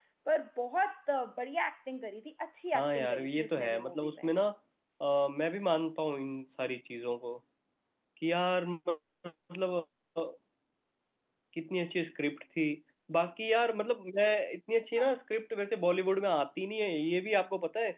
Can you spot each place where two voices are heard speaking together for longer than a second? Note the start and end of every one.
2.8-4.3

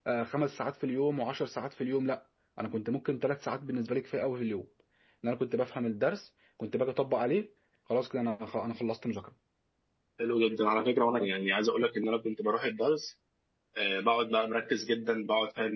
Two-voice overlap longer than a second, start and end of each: none

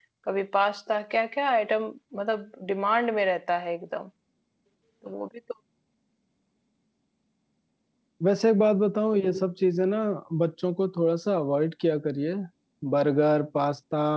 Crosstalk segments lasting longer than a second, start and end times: none

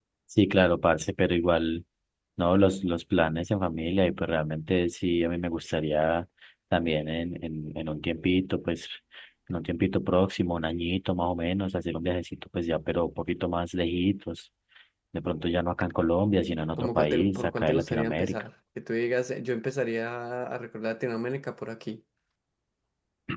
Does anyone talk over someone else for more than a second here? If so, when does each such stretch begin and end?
16.8-18.4

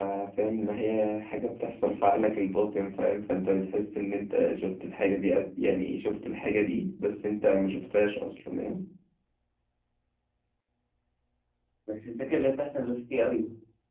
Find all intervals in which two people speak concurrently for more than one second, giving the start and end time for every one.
none

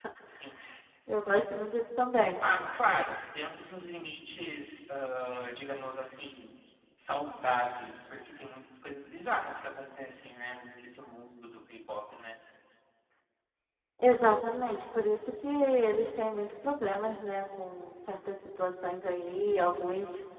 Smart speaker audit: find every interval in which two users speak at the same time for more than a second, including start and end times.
none

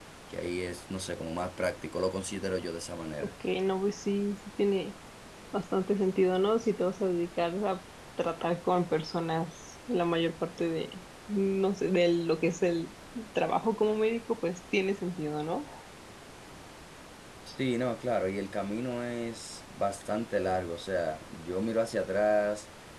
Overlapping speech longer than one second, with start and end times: none

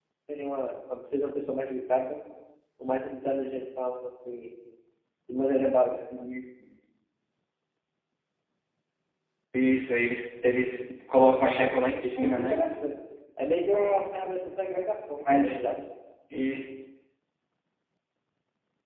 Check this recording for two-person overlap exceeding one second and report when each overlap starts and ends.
11.3-12.6

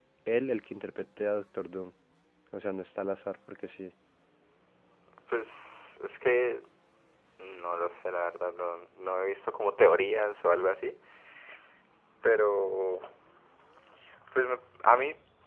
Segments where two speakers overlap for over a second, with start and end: none

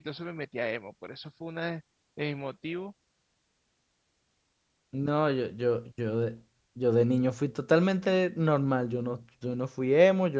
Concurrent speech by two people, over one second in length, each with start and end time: none

